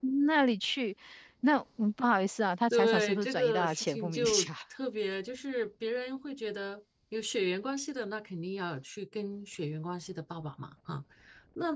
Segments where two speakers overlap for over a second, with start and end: 2.7-4.5

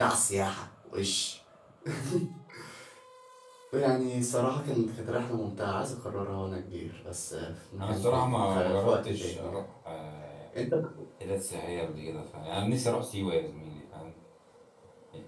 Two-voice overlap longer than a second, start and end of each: 7.8-9.6

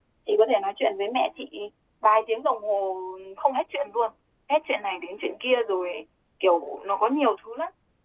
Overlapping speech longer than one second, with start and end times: none

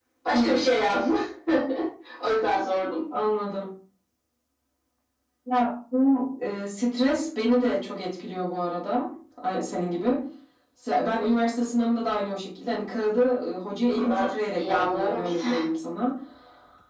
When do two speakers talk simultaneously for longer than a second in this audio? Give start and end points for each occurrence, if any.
14.0-15.5

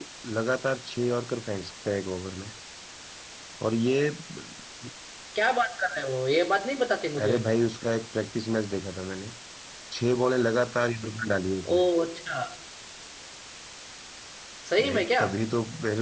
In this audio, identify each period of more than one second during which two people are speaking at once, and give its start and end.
none

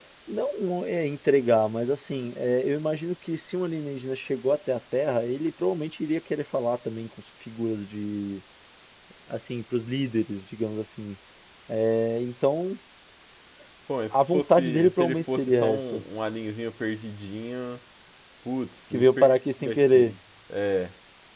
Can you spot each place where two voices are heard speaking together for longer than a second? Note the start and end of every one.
14.1-16.0, 18.9-20.2

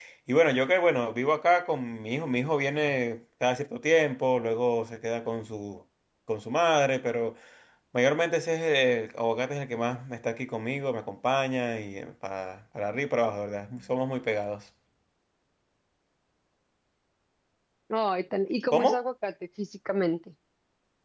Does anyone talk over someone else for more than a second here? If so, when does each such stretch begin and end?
none

